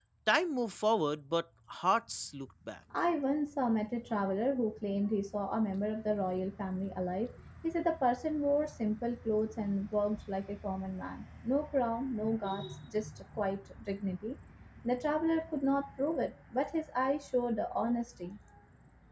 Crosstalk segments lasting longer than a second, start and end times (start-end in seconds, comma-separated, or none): none